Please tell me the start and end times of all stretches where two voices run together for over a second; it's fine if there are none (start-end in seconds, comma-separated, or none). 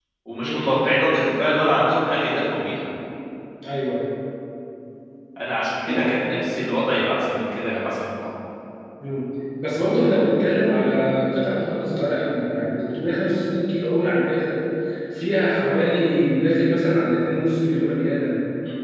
none